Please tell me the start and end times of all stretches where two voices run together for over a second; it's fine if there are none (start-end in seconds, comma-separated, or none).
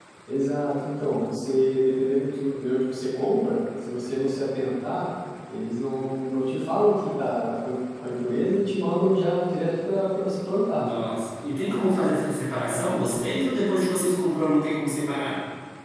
none